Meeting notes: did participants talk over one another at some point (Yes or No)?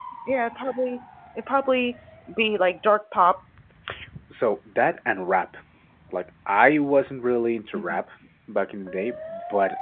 No